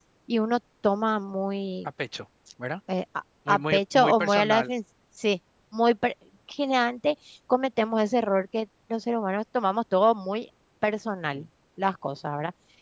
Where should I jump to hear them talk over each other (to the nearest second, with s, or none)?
3 s